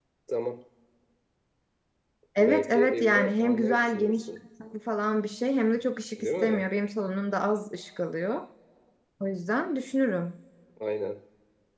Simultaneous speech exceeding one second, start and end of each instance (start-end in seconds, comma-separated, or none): 2.4-4.3